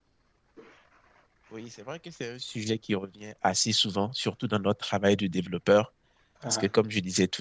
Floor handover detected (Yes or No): No